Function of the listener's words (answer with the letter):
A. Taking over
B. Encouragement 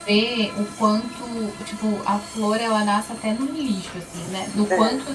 B